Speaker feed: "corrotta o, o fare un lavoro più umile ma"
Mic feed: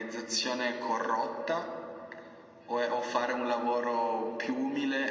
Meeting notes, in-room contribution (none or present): none